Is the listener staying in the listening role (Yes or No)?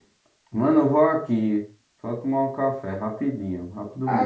No